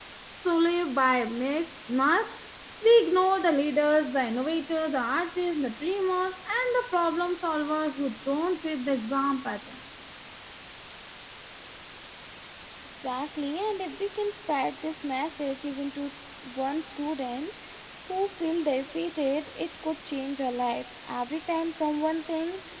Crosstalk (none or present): none